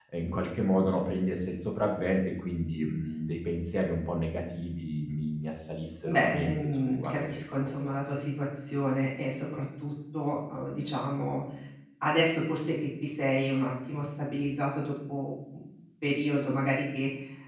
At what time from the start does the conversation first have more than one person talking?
6.0 s

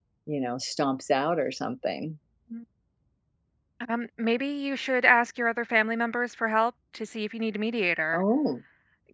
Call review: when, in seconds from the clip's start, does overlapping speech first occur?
none

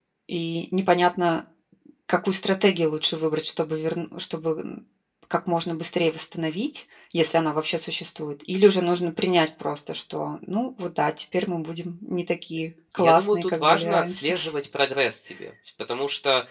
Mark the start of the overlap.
13.0 s

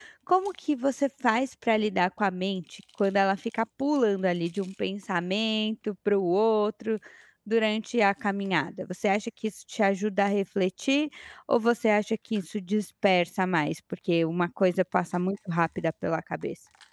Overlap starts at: none

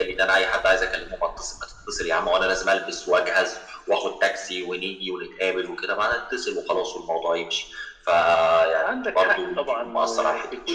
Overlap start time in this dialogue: 8.8 s

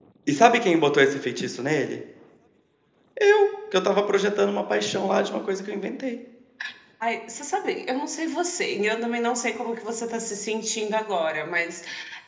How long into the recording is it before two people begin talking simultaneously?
none

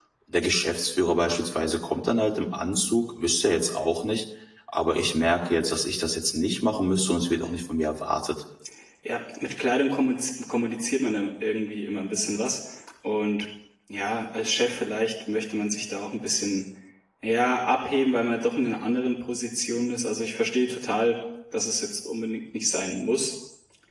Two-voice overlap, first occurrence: none

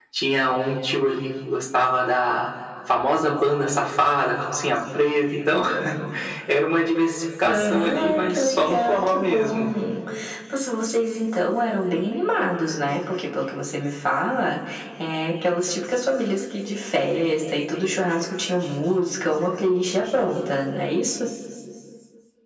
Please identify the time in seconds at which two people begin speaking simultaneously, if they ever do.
7.4 s

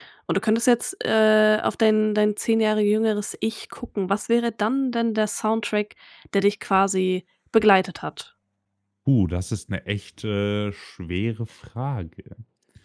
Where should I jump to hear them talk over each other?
none

